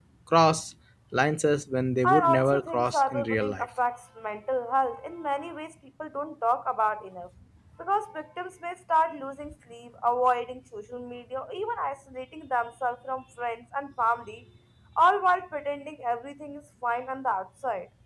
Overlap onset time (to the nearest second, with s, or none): 2 s